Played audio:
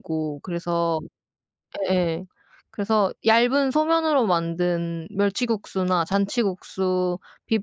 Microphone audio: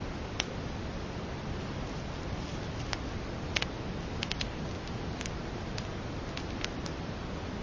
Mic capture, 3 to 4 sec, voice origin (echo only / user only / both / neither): neither